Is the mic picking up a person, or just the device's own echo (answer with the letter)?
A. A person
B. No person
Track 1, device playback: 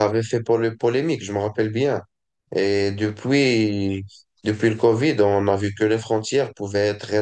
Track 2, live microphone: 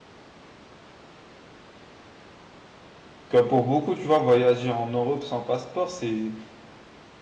A